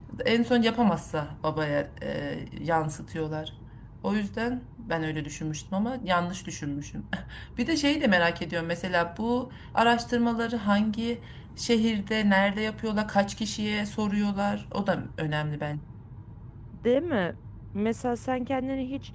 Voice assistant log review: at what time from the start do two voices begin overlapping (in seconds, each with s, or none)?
none